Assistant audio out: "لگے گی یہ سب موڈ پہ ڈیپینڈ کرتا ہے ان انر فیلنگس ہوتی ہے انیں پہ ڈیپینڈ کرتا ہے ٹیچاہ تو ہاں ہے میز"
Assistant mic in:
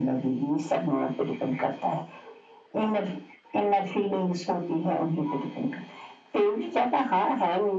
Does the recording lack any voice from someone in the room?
Yes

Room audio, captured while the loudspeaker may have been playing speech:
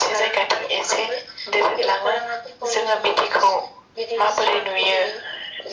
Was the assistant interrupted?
No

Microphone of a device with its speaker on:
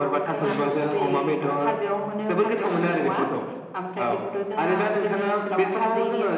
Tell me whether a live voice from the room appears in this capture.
No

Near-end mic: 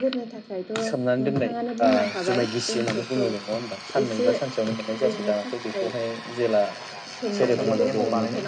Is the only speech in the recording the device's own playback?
No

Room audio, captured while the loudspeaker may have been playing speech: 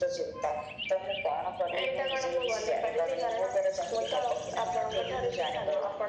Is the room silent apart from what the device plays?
Yes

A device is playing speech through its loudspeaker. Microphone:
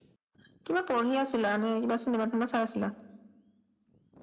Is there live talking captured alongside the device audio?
No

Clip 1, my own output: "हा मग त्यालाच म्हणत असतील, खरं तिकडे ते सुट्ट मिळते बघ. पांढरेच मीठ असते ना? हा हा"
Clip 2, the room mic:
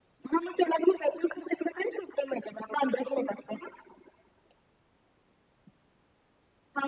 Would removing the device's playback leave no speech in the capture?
Yes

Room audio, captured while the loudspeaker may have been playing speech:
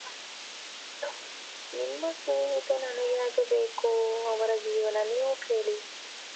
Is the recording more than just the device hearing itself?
No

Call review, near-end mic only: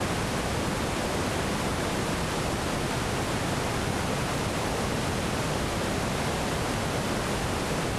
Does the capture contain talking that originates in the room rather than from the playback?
No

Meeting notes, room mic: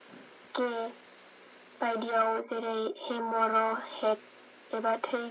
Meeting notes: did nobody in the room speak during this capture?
Yes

